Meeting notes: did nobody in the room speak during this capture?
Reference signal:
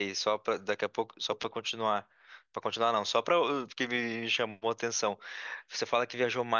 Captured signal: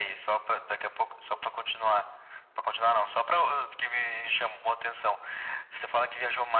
Yes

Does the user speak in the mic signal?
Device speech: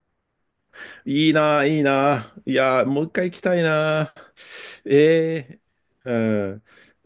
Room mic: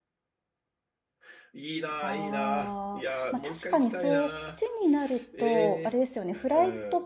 Yes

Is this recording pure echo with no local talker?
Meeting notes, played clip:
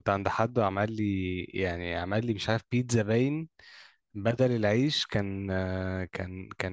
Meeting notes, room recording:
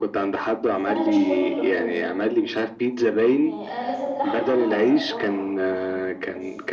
No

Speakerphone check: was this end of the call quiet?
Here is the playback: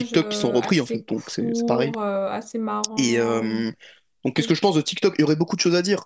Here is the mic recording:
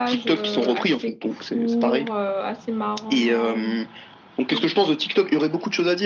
Yes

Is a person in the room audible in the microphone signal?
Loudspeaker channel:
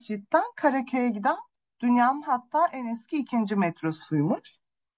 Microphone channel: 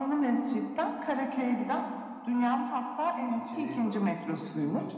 Yes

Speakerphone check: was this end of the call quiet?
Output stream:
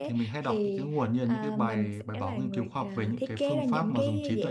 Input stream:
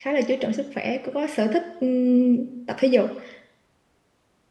No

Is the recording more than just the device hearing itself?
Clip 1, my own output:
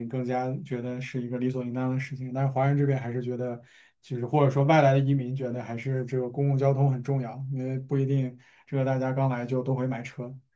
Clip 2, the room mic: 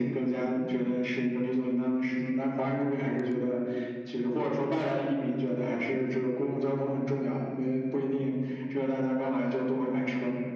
No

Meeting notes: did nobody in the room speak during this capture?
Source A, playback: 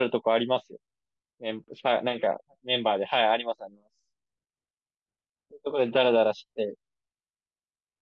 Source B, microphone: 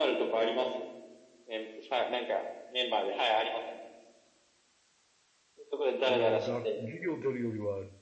No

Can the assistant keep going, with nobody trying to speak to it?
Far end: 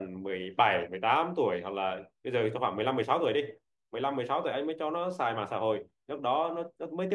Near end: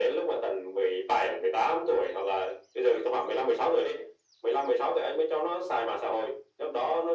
Yes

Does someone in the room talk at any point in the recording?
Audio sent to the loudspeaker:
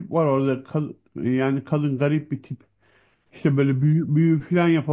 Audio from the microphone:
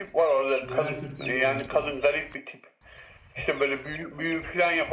Yes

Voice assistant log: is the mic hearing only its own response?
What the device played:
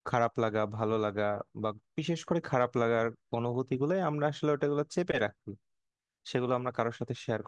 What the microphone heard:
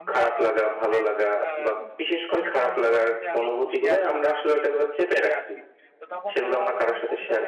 No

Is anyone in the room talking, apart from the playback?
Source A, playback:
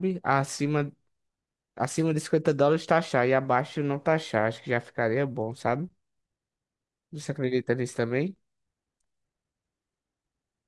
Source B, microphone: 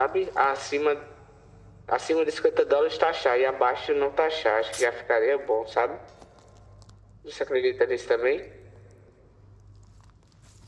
No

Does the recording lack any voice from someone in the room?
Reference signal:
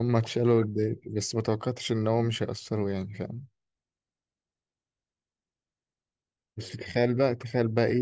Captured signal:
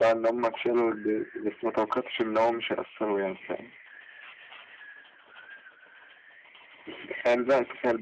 Yes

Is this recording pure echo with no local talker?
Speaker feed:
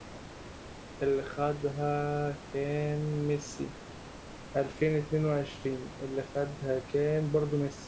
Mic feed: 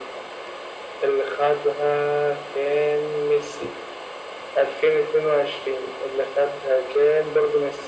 Yes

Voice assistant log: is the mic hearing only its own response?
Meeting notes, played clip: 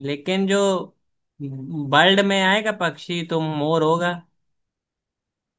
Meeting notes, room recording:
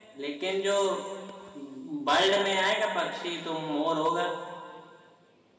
Yes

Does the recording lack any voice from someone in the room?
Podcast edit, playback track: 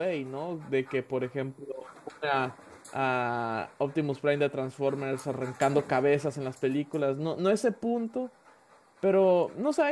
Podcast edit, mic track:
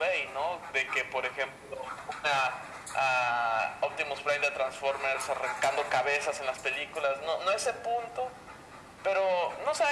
Yes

